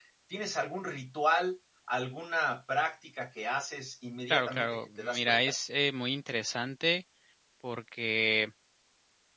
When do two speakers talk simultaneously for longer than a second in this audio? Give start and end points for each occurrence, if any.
4.3-5.5

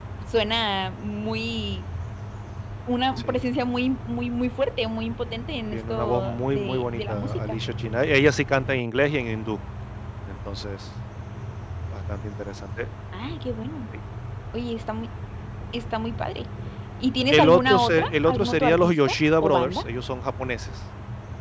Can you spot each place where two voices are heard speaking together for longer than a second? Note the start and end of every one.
5.7-7.6, 17.3-19.8

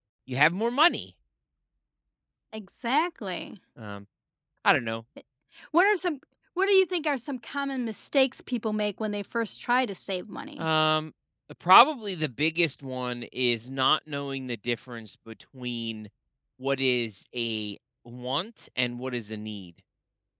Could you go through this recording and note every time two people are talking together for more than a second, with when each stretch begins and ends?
none

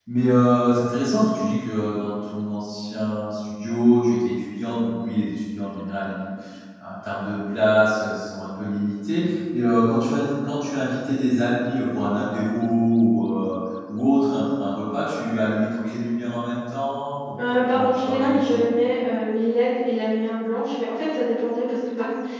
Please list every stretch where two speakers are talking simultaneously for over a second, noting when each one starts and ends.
17.4-18.6

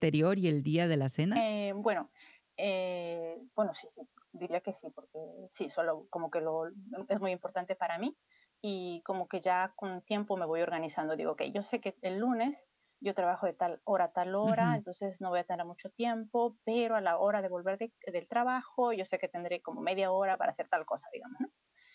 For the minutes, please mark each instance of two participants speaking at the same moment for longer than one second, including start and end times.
none

